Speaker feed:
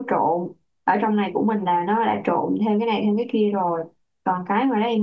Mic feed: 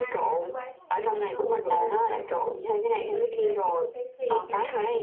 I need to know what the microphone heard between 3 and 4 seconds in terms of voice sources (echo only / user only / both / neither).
both